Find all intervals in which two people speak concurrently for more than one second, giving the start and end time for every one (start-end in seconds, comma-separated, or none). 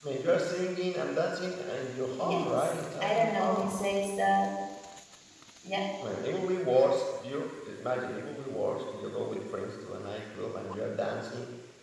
2.2-3.7